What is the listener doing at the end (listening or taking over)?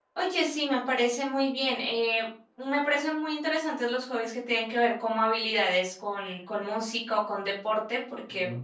listening